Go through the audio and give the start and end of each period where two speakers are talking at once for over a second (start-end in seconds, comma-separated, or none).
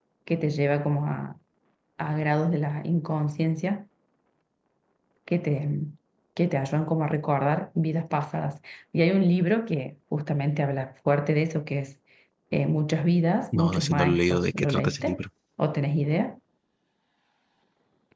13.5-15.2